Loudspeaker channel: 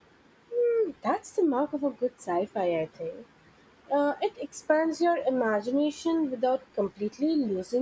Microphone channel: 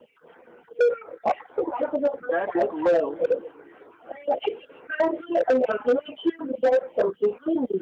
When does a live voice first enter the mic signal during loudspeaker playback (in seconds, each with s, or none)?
2.2 s